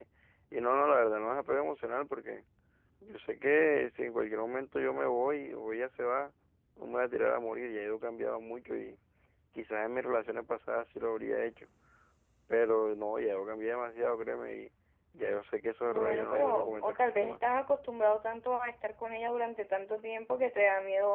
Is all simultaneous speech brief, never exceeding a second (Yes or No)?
No